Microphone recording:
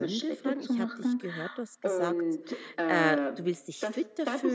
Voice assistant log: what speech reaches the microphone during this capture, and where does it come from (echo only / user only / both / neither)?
both